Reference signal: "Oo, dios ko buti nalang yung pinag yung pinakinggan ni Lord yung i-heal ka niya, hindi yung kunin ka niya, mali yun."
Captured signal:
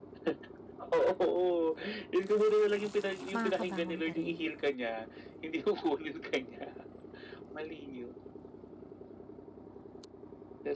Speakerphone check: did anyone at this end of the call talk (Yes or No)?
Yes